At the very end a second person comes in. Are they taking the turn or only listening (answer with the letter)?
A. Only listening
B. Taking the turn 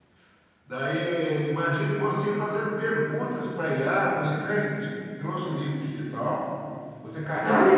A